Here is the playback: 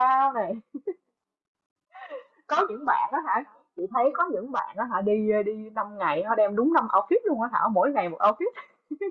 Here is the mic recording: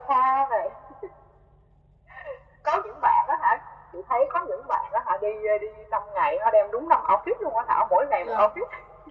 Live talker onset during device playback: 8.2 s

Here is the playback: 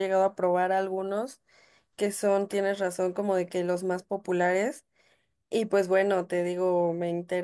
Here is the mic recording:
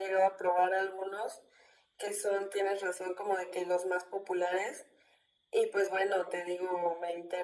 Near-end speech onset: none

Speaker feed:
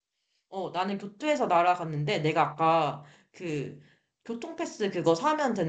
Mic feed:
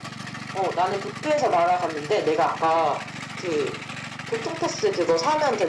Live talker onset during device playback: none

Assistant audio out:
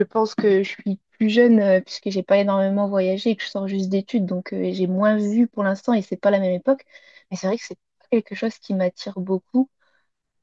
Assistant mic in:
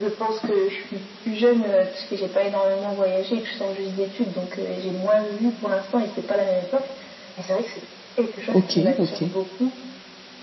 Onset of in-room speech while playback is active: 8.5 s

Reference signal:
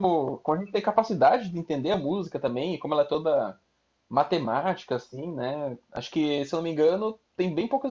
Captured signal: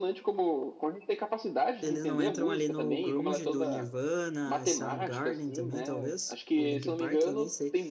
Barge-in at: 1.8 s

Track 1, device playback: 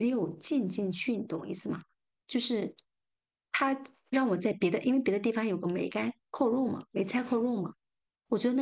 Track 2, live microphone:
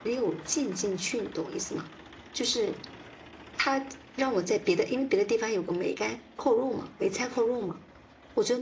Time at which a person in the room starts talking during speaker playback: none

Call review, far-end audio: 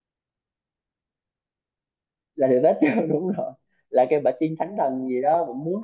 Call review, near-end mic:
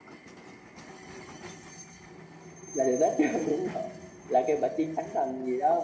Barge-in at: none

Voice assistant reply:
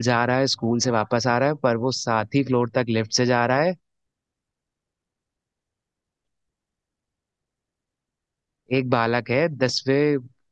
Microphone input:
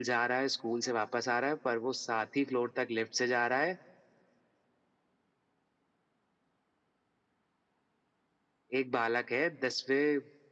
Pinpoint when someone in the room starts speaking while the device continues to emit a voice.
none

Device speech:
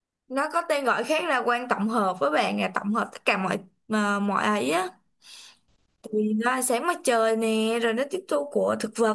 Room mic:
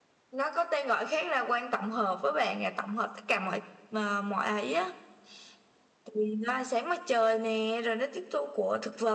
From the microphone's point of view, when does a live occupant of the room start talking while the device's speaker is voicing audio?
none

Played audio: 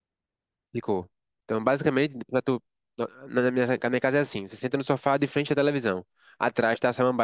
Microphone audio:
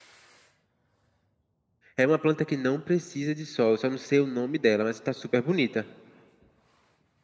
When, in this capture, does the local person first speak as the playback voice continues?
2.0 s

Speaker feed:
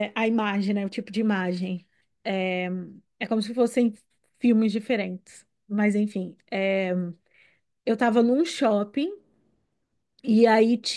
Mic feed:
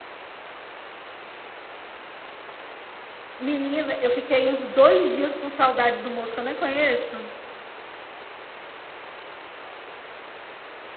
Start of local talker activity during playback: 3.4 s

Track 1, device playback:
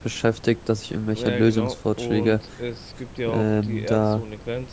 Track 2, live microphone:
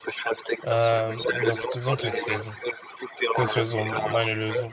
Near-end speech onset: 0.6 s

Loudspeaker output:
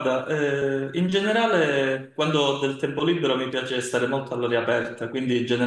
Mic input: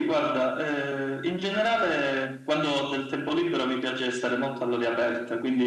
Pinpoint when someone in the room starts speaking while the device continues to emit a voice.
none

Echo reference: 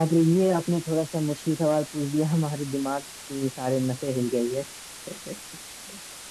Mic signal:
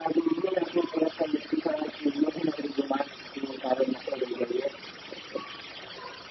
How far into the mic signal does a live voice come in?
none

